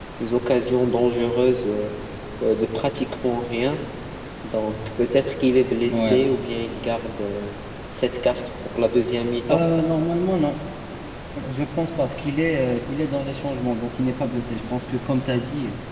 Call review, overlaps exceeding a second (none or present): none